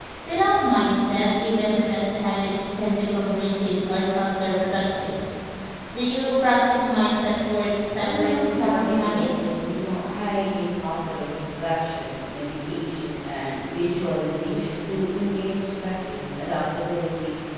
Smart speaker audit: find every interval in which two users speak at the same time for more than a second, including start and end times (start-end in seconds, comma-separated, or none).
8.0-9.6